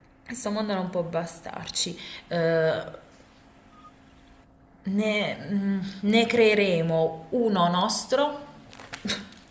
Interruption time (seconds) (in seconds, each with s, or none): none